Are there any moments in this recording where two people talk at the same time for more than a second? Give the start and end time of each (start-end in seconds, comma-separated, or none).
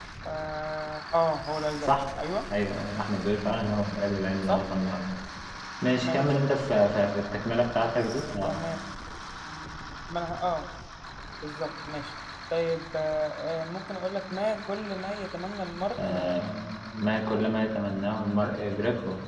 none